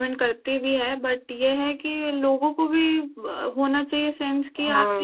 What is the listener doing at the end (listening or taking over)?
taking over